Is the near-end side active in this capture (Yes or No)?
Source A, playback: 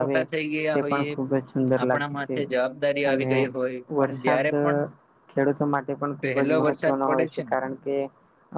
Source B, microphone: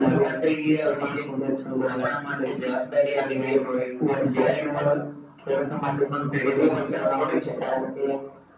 No